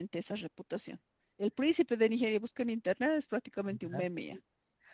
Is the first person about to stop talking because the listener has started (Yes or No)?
No